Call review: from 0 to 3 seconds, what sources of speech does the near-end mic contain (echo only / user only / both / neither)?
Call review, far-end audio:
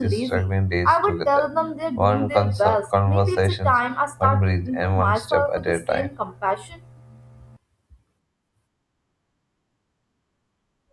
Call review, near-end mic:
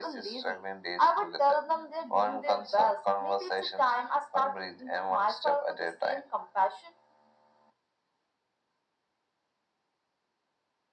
echo only